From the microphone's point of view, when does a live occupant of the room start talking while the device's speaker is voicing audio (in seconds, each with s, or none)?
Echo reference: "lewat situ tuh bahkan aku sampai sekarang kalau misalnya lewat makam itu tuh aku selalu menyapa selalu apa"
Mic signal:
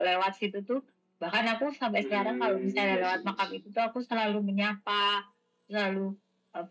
2.0 s